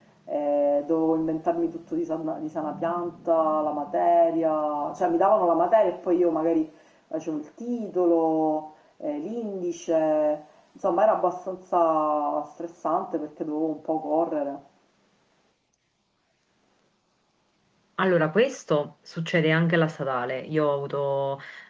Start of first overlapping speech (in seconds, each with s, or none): none